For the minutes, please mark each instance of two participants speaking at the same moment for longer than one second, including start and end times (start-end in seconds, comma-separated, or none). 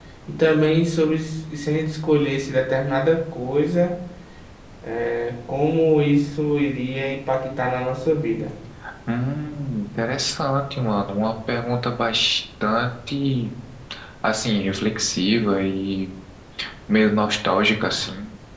none